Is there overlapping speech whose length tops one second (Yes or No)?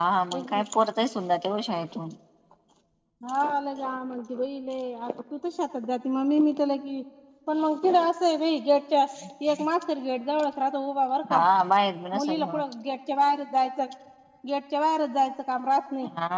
No